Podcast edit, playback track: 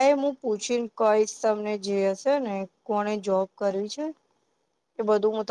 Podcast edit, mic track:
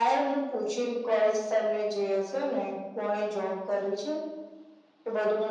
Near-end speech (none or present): none